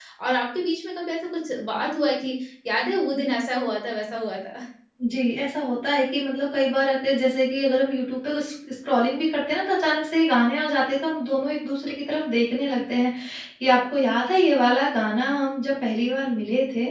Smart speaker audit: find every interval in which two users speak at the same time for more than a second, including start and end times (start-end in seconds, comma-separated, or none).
none